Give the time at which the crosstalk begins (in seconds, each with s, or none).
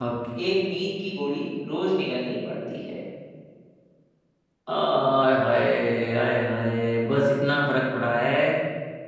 none